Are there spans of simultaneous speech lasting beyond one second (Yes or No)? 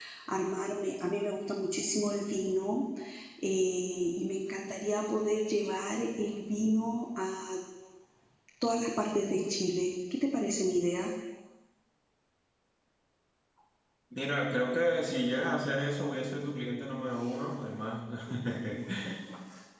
No